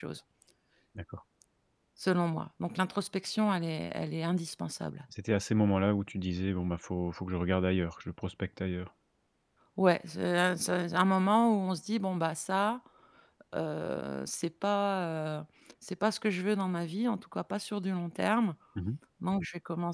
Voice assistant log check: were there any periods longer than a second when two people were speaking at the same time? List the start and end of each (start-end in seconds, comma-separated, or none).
none